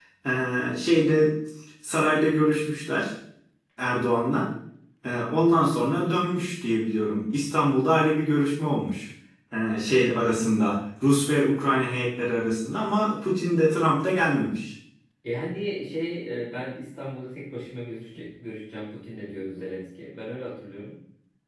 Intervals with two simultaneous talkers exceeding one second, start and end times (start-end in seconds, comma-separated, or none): none